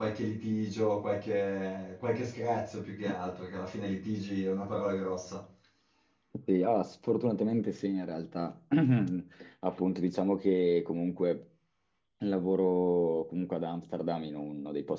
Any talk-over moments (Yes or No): No